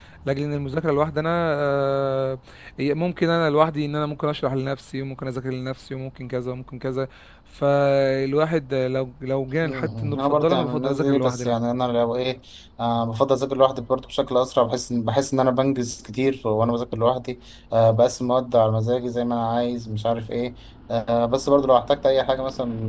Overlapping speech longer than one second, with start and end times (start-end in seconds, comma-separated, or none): 9.6-11.6